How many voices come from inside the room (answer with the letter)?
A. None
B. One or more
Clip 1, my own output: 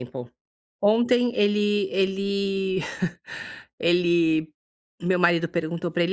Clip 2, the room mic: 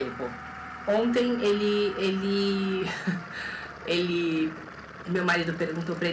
A